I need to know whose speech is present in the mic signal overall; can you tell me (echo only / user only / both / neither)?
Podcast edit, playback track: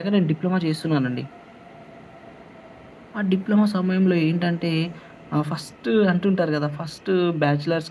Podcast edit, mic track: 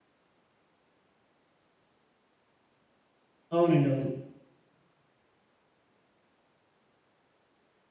user only